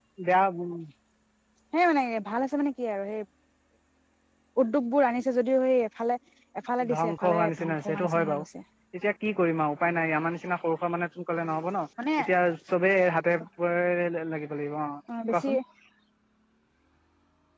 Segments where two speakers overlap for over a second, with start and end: 6.9-8.4

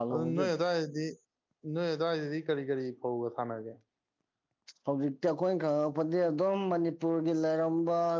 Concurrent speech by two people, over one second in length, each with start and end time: none

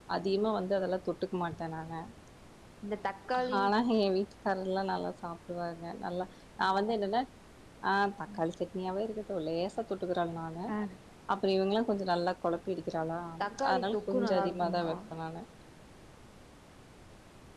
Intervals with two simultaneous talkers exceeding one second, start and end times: 13.7-14.9

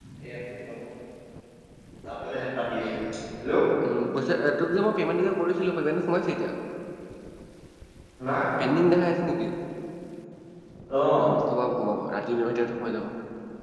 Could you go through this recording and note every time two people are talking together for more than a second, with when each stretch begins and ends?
none

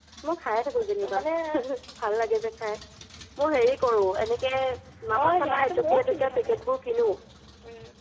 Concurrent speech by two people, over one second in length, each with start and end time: 5.2-6.5

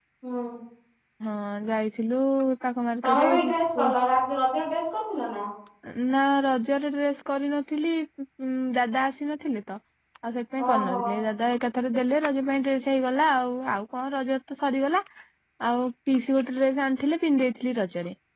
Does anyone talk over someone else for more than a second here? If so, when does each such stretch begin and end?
none

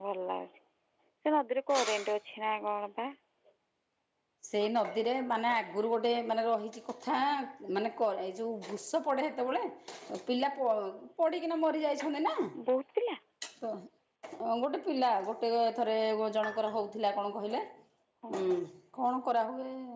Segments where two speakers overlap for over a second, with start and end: none

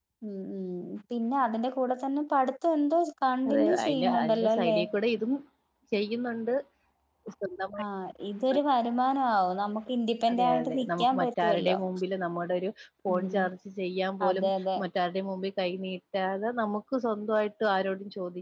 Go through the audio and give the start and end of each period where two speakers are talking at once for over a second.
3.5-4.8, 10.3-11.8

